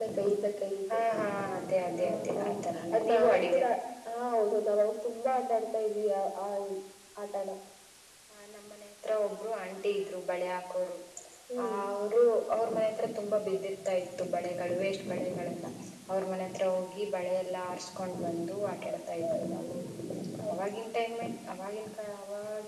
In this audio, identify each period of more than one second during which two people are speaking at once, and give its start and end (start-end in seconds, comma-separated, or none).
1.9-3.6